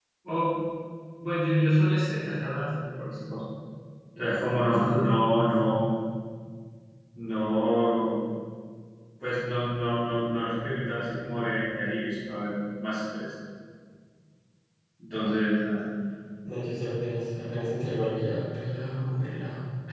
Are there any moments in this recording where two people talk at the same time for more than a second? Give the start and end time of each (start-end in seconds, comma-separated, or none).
none